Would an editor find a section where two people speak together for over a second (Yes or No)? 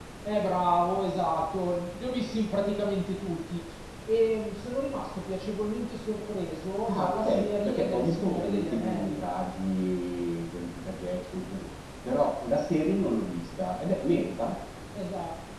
Yes